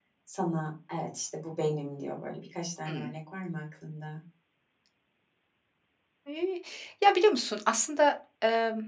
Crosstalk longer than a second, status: none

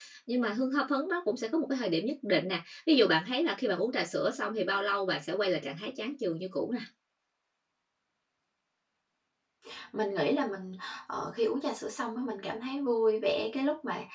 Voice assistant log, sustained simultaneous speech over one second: none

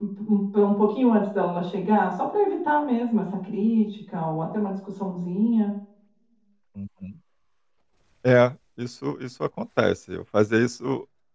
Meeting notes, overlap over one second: none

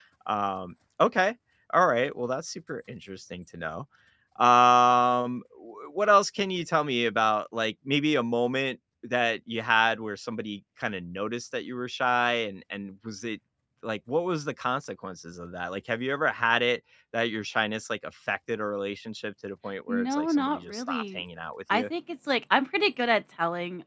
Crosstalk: present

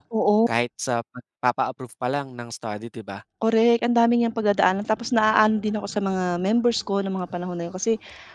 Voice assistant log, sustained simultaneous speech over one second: none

